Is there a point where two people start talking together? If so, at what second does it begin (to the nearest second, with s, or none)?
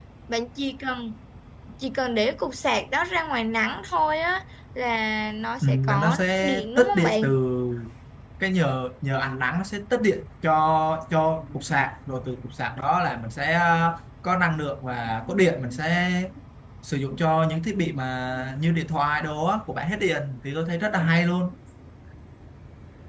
6 s